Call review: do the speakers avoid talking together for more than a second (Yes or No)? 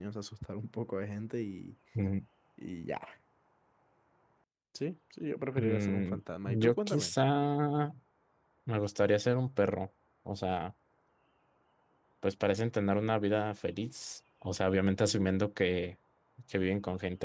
No